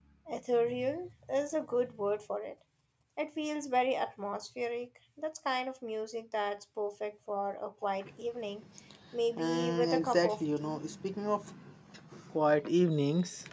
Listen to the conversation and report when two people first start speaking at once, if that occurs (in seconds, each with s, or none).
9.3 s